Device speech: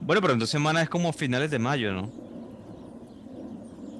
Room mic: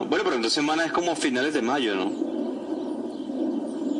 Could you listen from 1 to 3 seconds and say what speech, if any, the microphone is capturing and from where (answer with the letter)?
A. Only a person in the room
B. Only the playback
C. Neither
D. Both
B